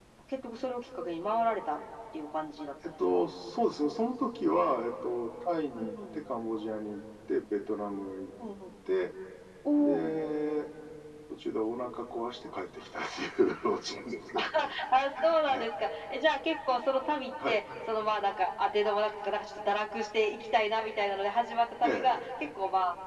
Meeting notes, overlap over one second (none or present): none